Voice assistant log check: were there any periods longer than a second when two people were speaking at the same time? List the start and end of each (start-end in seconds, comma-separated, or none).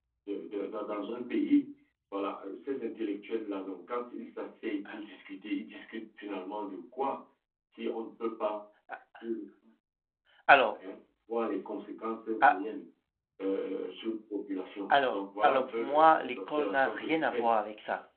15.1-17.4